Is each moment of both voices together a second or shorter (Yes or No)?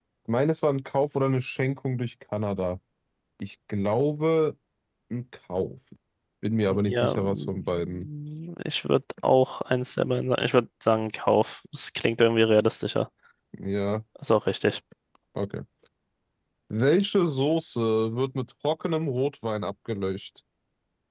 No